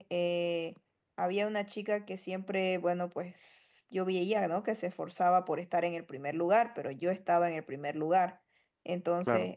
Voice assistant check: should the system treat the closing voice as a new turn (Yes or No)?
No